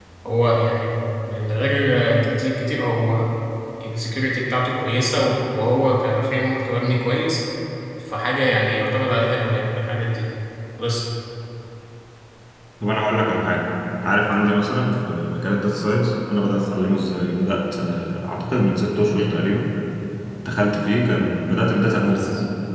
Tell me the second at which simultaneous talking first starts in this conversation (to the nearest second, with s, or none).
none